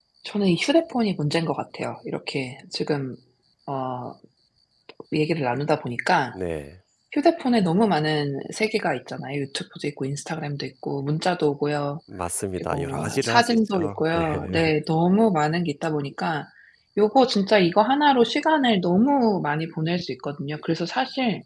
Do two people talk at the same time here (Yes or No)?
Yes